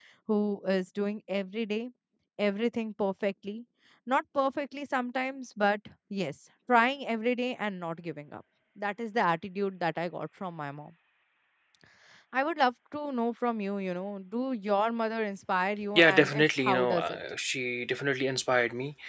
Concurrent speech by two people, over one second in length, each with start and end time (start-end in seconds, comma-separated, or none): 15.9-17.2